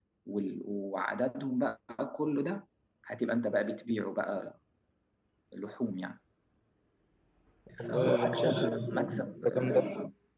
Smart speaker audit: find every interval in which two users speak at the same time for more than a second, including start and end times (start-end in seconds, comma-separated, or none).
7.8-9.0